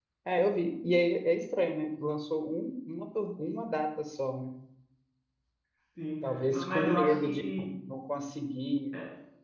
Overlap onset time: 6.2 s

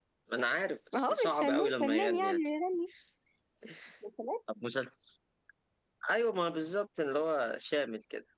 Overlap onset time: 0.9 s

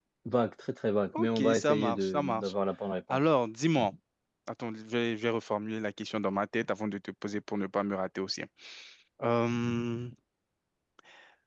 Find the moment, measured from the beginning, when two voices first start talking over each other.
1.2 s

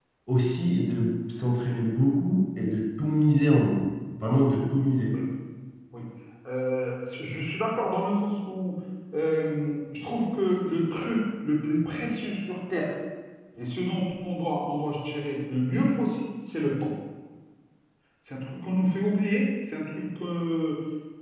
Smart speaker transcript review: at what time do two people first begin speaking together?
none

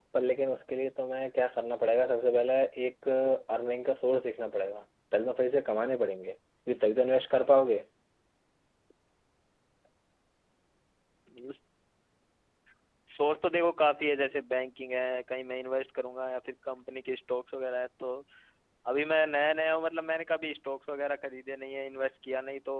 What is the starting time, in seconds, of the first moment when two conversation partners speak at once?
none

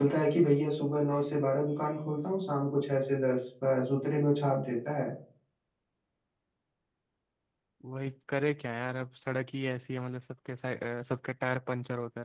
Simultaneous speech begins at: none

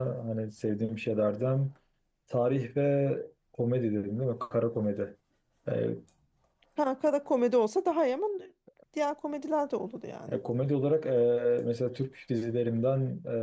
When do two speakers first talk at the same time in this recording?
none

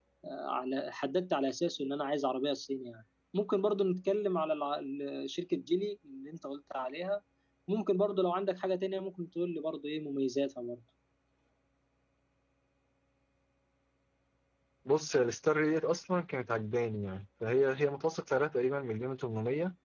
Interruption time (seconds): none

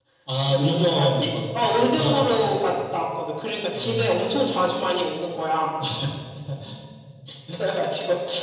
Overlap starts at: 0.6 s

